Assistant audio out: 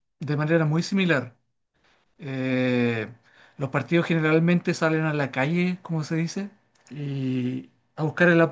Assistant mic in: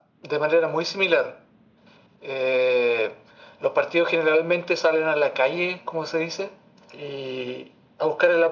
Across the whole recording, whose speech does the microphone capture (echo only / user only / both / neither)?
echo only